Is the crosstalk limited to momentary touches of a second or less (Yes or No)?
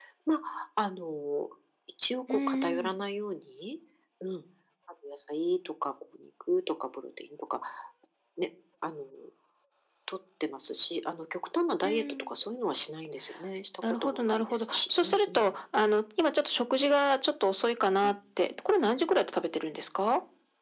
No